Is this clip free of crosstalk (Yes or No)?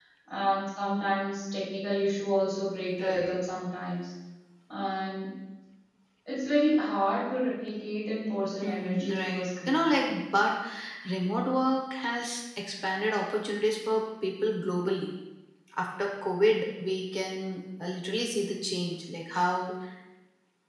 No